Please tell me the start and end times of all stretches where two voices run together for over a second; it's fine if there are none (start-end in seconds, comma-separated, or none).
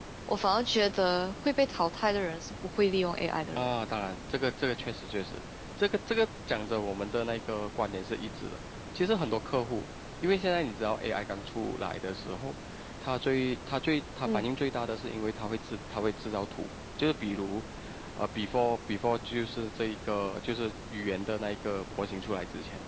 none